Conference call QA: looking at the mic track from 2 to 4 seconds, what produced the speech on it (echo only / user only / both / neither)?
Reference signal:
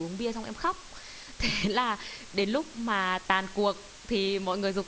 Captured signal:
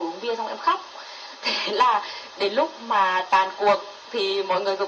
echo only